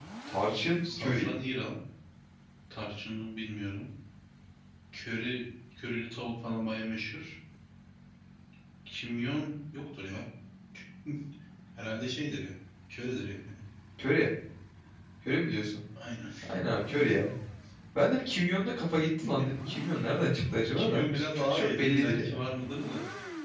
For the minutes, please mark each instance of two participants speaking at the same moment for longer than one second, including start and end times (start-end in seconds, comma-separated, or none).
20.7-22.4